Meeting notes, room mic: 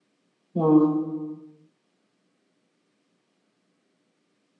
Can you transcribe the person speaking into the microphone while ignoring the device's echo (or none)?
Mm,